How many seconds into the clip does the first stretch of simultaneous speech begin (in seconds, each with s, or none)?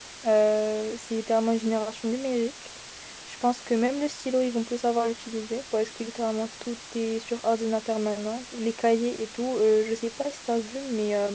none